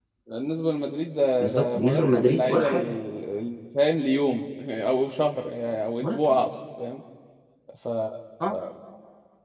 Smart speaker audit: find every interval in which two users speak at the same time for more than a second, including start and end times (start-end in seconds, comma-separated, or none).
1.4-3.0